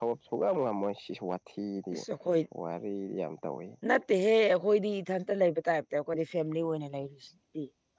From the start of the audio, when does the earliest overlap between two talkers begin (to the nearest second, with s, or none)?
none